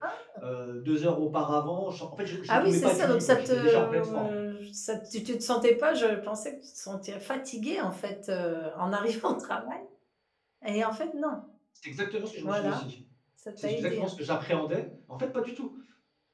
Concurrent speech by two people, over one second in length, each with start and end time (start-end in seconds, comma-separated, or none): 2.5-4.3